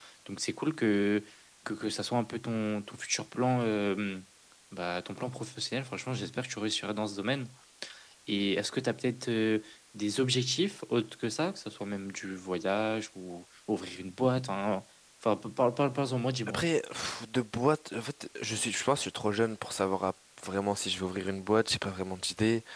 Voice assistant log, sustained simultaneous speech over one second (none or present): none